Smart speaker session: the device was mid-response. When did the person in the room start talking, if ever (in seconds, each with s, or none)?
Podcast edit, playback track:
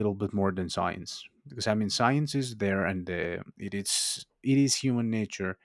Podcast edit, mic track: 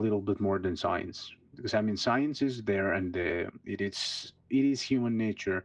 none